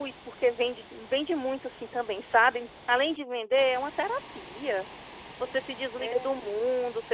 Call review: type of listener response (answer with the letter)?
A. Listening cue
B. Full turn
A